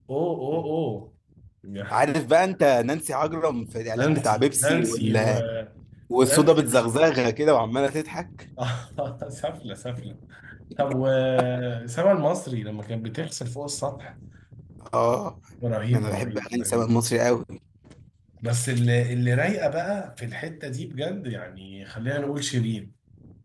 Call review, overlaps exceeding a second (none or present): present